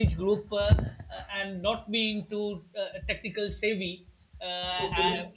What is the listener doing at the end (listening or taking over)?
listening